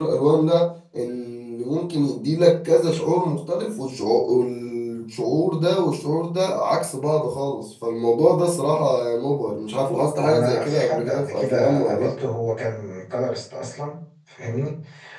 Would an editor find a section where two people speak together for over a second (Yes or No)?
Yes